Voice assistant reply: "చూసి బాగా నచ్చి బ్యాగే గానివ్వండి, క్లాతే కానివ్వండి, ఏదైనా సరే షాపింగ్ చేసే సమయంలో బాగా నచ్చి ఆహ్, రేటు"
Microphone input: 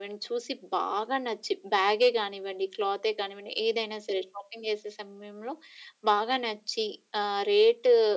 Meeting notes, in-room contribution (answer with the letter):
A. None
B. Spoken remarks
A